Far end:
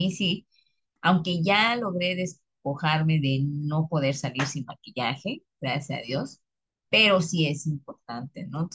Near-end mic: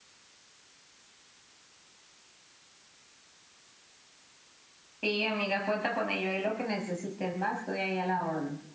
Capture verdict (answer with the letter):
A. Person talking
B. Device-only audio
A